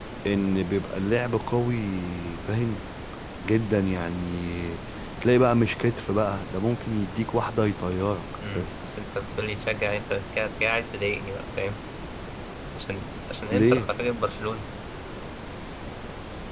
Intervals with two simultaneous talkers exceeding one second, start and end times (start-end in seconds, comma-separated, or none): none